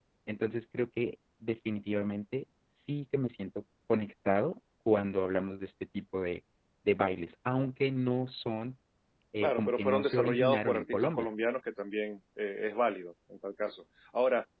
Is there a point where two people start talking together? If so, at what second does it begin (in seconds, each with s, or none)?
9.4 s